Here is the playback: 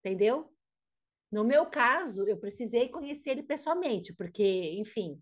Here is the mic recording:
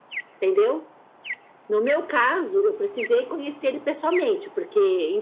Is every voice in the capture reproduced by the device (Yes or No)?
Yes